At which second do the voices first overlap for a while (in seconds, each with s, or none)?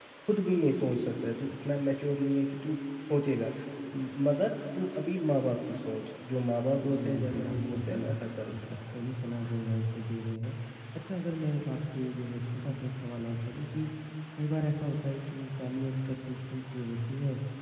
6.8 s